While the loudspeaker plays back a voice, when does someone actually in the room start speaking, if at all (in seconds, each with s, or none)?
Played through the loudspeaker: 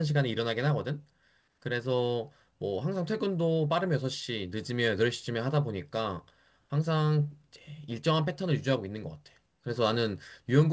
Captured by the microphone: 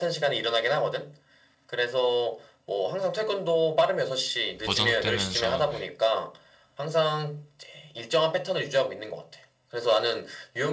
4.6 s